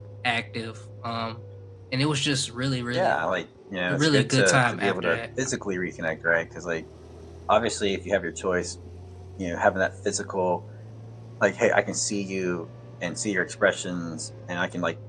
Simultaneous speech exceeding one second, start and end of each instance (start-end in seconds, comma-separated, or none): 3.9-5.2